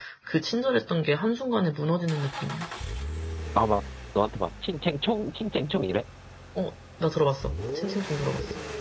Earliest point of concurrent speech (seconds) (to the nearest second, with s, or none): none